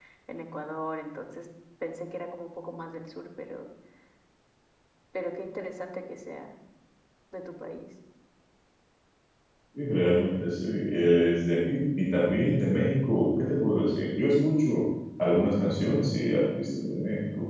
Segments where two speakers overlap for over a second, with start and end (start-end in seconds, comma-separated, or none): none